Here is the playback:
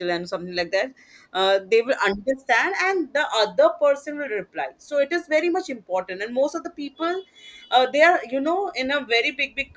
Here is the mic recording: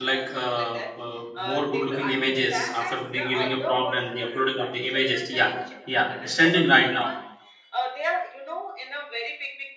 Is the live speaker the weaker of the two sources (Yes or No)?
No